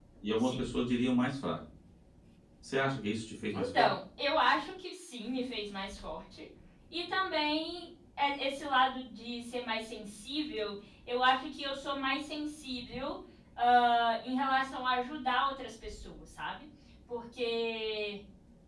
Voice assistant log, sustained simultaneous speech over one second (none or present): none